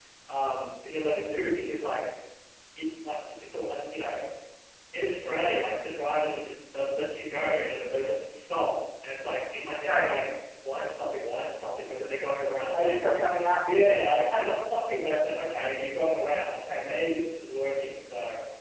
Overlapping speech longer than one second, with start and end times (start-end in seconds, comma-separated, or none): none